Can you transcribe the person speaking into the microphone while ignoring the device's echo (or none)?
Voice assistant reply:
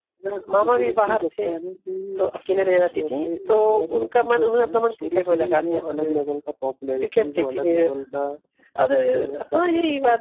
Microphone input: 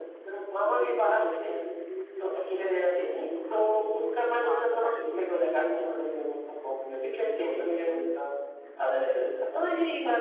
हाँ बता रहे थे बताइए